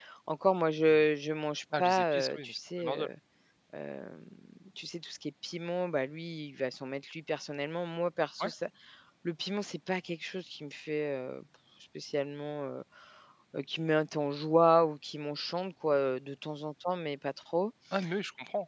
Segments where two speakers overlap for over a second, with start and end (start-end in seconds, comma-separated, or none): 1.8-3.1